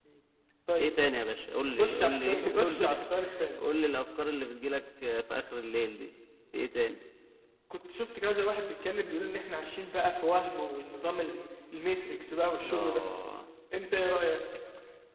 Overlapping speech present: Yes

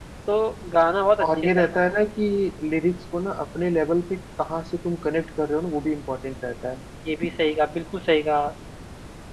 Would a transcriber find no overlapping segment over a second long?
Yes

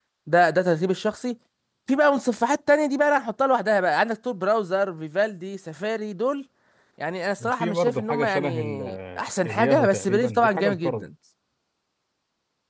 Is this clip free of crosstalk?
No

